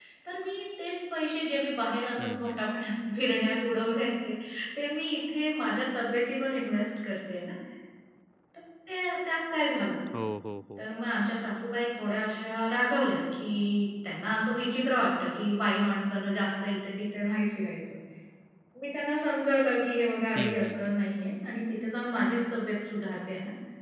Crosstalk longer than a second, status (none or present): none